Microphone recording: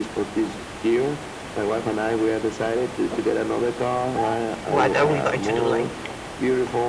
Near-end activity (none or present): present